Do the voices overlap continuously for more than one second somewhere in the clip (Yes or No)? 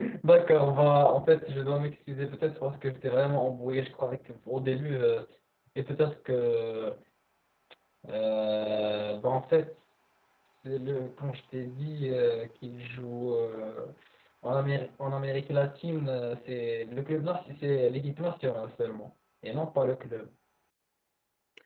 No